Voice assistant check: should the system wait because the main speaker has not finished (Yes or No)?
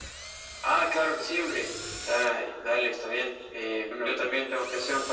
Yes